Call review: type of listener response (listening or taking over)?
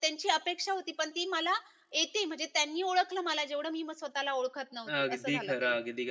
taking over